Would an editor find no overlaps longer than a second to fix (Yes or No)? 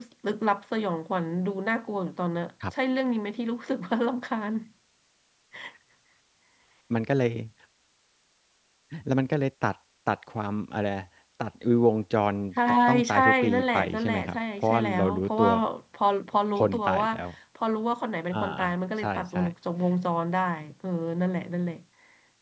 No